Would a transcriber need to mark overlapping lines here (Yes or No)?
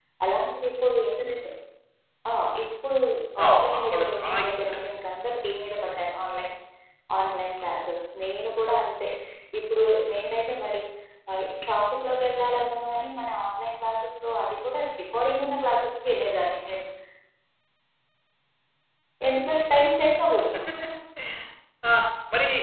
Yes